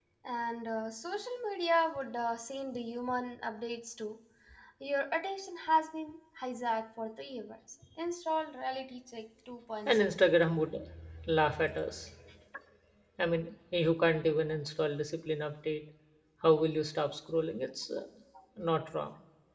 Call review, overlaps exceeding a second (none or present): none